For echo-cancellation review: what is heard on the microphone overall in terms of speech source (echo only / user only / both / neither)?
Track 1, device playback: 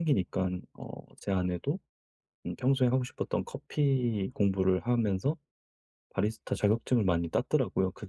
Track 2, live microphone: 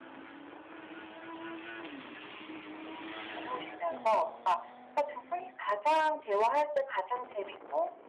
user only